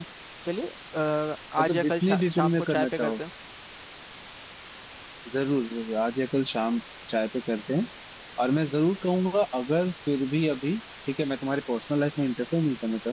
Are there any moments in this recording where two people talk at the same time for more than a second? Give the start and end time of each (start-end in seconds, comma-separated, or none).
1.6-3.2